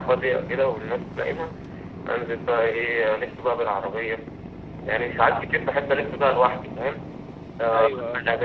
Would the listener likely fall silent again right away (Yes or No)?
Yes